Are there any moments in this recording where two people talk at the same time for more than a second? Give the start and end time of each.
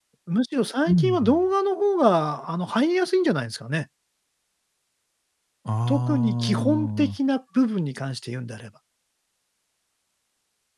5.9-7.2

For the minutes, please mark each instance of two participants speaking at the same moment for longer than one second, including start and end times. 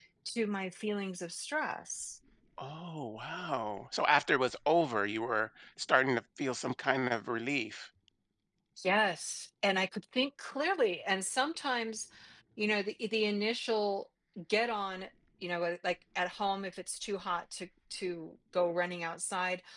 none

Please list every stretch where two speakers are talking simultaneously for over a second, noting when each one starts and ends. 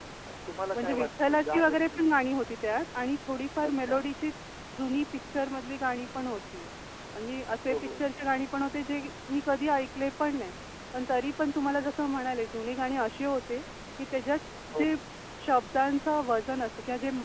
0.7-2.0

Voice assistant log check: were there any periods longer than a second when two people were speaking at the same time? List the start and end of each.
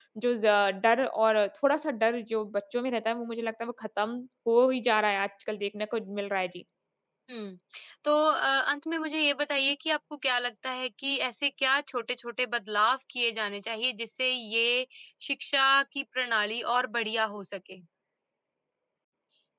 none

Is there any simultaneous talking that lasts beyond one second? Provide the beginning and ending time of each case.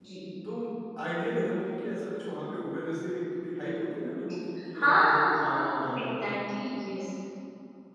4.8-6.1

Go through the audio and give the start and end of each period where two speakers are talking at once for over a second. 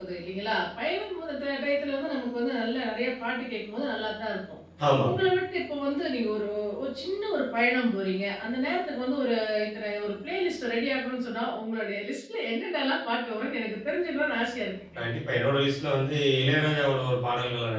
none

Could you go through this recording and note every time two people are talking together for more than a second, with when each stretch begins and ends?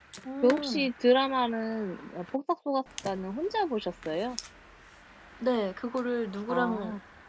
none

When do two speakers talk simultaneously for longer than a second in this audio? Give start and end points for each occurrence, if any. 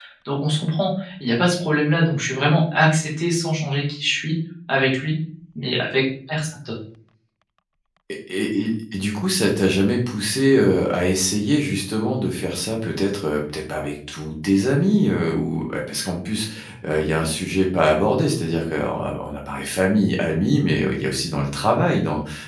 none

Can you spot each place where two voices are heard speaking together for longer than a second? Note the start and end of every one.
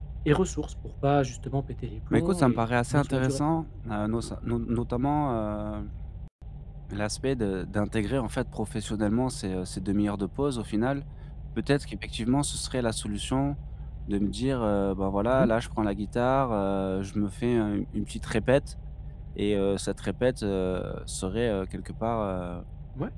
2.1-3.4

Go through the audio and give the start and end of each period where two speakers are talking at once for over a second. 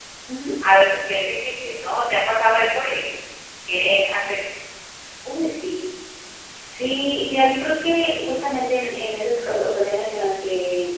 none

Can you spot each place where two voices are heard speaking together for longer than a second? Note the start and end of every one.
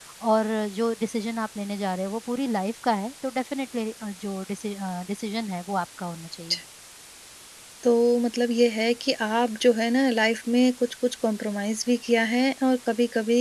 none

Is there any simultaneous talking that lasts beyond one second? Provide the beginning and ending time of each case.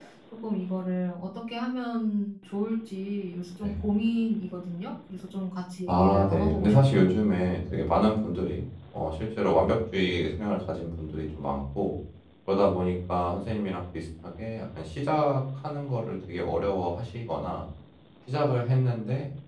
5.9-7.2

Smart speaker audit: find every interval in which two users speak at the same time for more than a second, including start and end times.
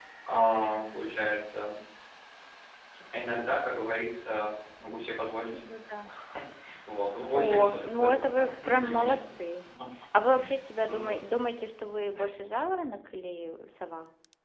7.3-9.2

